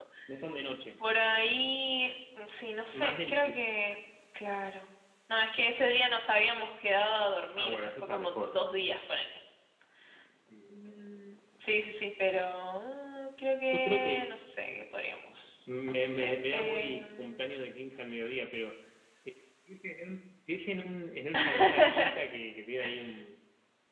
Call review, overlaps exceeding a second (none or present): present